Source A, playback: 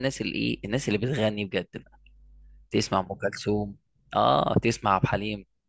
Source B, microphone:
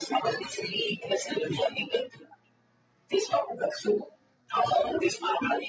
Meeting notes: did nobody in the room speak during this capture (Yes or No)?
Yes